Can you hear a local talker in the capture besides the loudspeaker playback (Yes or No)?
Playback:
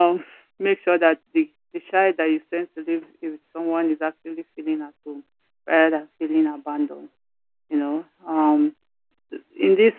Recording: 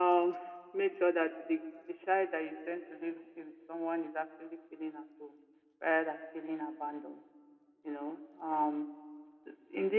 No